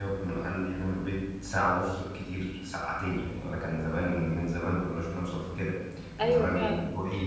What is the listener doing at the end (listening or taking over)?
listening